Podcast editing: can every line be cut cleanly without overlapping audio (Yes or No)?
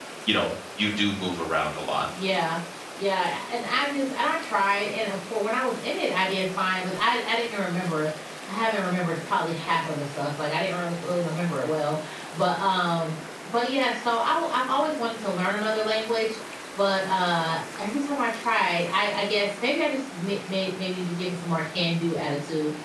Yes